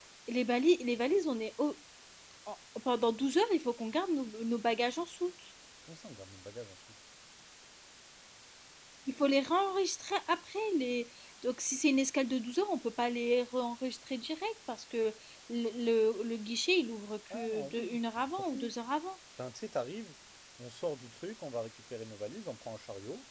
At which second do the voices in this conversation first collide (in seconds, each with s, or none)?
17.3 s